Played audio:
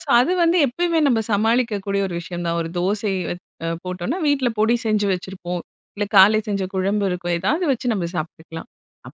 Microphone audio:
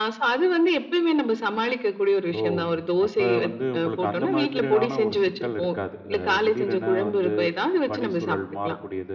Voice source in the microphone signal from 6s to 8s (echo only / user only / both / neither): both